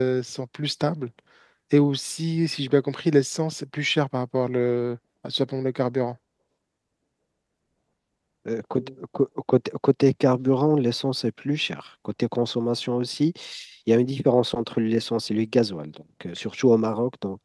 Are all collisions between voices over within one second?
Yes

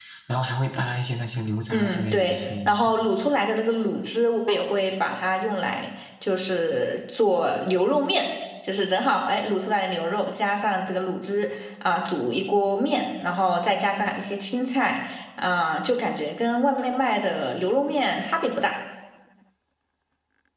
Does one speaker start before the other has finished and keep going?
Yes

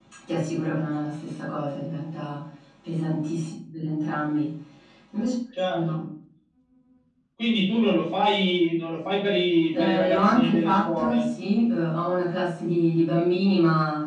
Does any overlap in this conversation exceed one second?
Yes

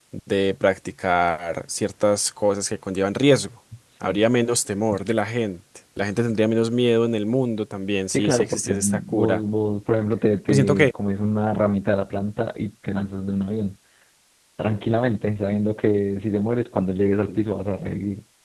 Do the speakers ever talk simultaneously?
Yes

